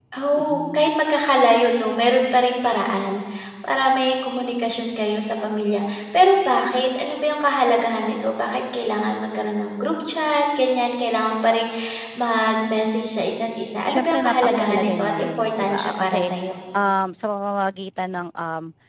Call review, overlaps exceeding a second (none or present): present